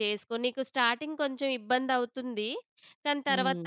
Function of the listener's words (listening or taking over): listening